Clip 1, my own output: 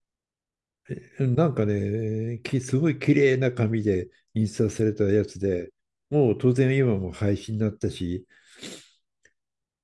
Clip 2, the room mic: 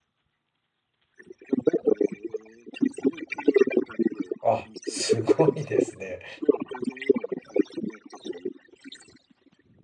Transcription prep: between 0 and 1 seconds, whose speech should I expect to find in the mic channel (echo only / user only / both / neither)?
neither